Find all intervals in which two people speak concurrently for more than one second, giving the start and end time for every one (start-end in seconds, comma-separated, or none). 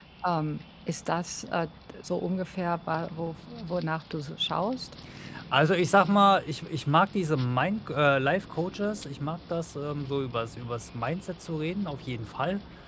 none